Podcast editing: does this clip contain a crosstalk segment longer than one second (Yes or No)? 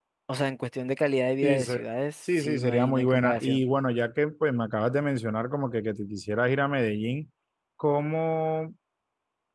Yes